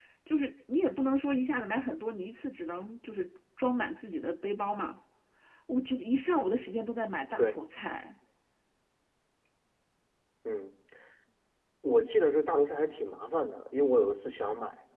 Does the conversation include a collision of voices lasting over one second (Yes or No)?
No